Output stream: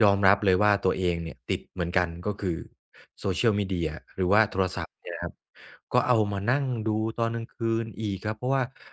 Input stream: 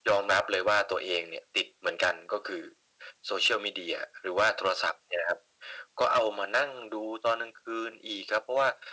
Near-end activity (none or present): none